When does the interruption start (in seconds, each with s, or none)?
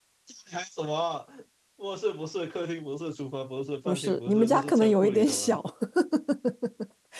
3.9 s